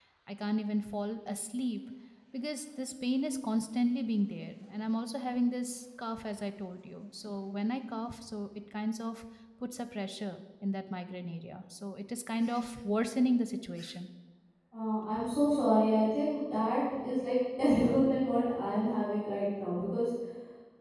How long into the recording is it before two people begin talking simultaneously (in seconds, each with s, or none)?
none